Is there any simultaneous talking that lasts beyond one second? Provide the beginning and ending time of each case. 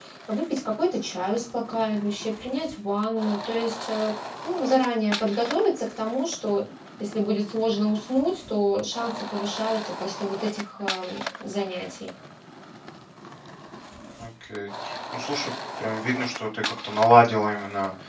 none

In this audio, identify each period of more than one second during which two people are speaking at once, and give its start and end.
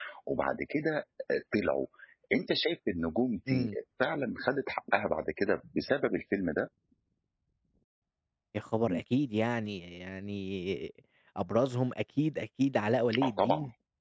none

